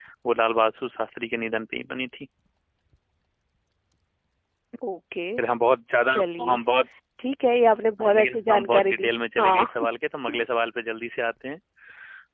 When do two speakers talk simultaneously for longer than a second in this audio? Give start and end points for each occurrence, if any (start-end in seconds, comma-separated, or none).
8.0-9.7